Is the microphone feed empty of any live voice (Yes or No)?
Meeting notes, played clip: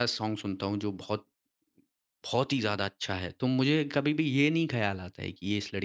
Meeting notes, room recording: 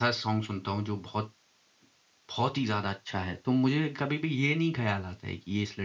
Yes